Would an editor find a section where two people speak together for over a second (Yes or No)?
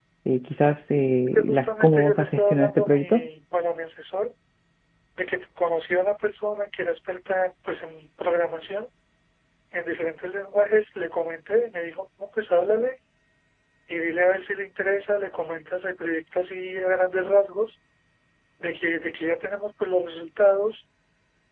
Yes